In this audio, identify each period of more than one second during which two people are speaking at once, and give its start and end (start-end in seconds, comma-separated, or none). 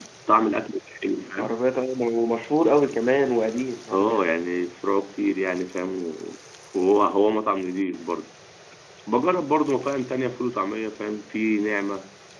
none